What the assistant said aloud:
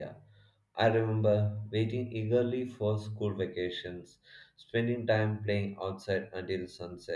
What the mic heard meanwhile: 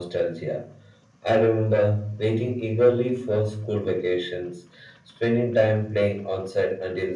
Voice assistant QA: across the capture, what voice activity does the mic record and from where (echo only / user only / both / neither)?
echo only